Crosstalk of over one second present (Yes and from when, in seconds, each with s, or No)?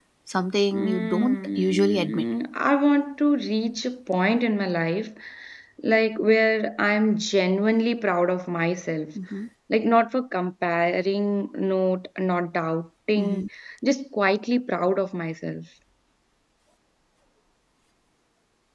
Yes, from 0.7 s